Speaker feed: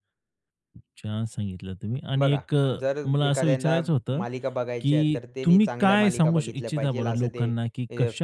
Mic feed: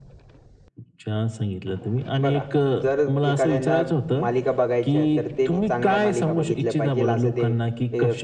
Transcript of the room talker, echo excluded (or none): none